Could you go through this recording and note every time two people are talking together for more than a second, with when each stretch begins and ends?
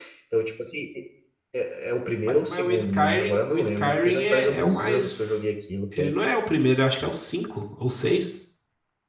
2.2-5.4

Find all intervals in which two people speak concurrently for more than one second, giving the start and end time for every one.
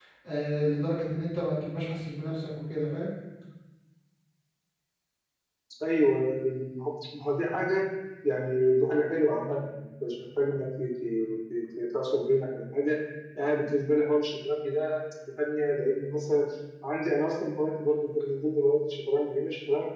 none

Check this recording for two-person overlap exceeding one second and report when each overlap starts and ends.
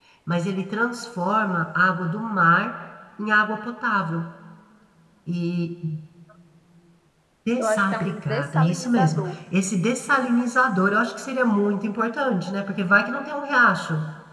7.6-9.4

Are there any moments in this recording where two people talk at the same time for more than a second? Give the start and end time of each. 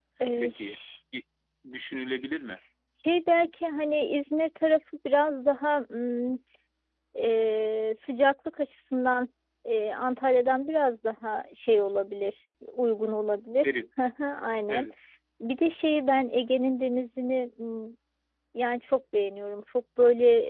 none

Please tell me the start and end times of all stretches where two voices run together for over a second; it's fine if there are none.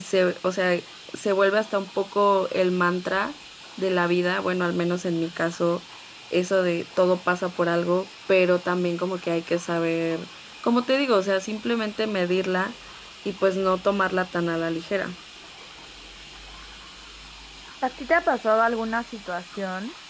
none

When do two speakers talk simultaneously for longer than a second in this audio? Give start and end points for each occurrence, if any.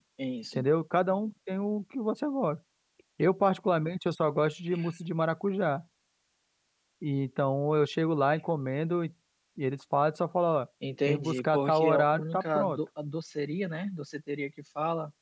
11.1-12.8

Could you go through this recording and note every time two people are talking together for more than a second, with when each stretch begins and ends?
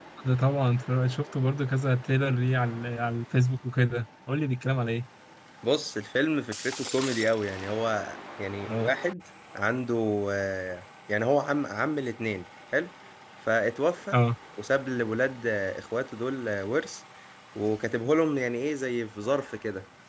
none

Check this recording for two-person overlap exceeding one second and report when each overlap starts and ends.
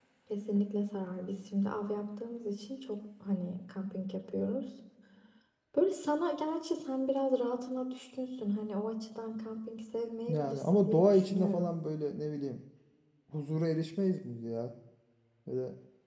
10.3-11.7

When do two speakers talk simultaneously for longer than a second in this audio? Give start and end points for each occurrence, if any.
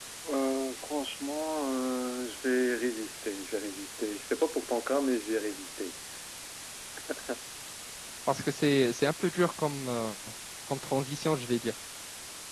none

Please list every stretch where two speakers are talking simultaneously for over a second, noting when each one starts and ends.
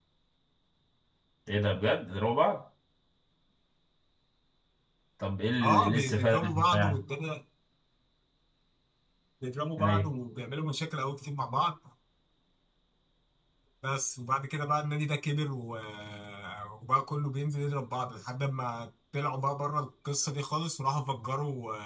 5.6-7.0

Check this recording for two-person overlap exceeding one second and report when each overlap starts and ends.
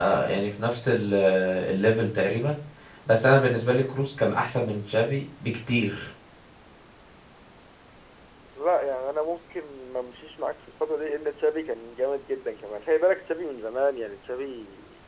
none

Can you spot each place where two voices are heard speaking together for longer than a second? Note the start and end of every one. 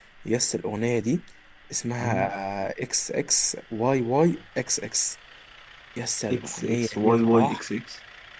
6.3-7.6

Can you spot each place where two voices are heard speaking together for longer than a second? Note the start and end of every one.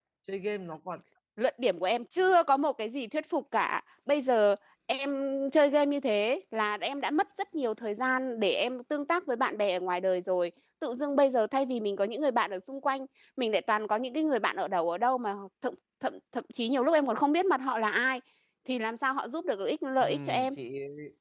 none

